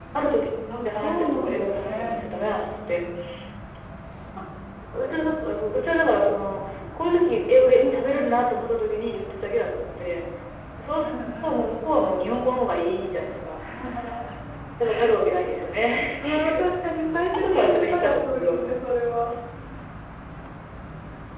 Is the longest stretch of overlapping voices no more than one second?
No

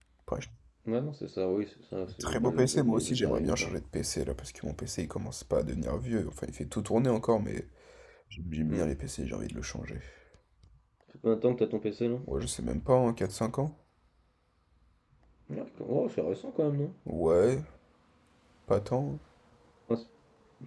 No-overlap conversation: No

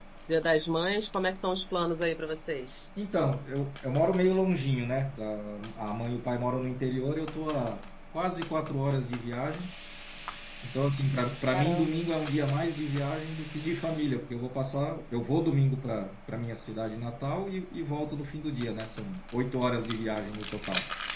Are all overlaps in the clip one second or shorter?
Yes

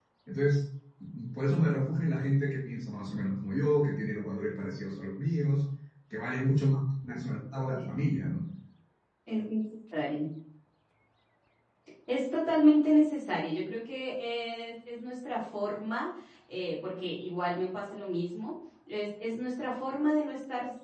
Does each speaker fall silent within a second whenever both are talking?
Yes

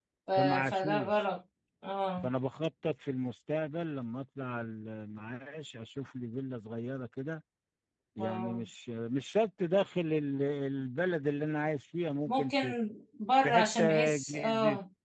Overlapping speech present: Yes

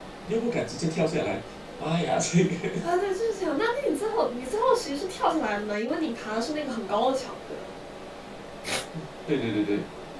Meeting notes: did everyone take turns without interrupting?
Yes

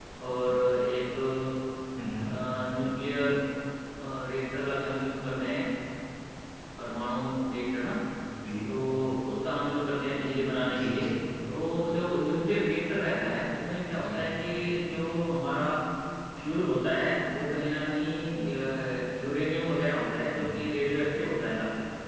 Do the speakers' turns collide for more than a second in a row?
No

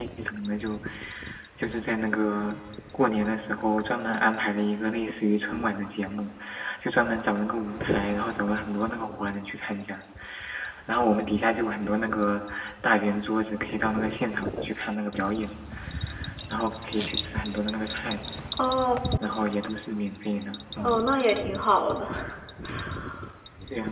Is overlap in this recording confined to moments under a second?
Yes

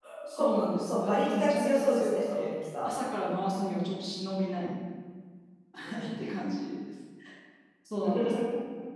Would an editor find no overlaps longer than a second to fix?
No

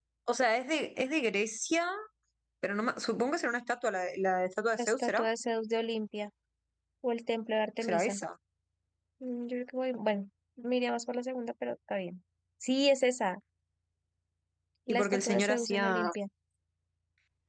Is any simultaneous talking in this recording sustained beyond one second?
Yes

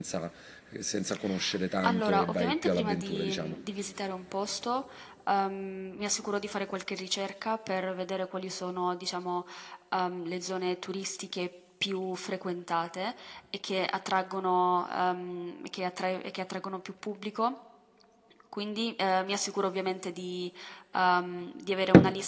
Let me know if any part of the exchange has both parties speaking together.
Yes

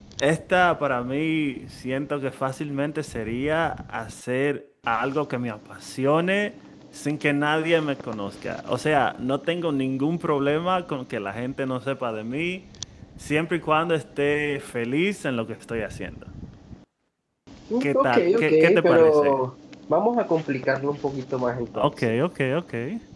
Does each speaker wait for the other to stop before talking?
No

